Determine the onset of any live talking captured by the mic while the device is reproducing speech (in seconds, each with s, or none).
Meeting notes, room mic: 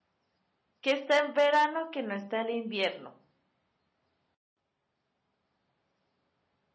0.8 s